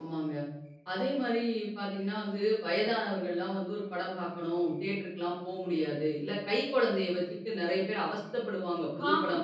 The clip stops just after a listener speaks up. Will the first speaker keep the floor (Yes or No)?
Yes